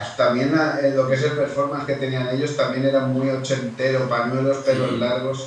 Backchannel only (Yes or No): Yes